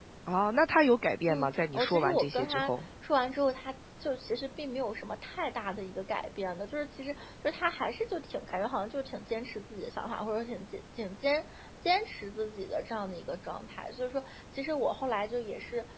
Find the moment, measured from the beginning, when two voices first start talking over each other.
1.3 s

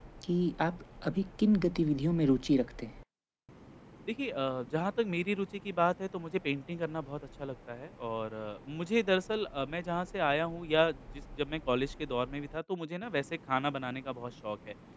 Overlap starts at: none

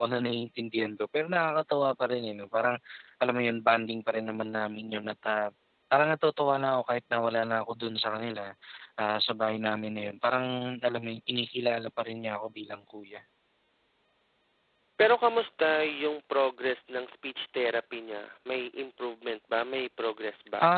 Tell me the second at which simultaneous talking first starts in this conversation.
none

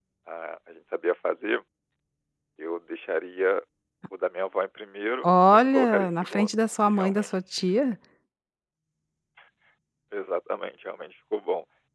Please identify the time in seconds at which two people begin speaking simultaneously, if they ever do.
5.2 s

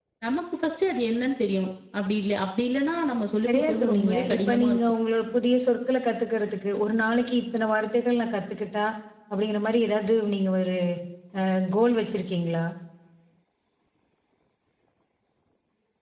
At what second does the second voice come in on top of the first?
3.5 s

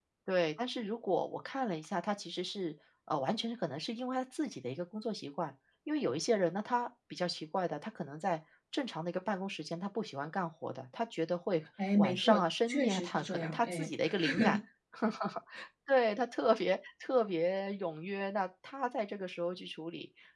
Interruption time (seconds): 11.8 s

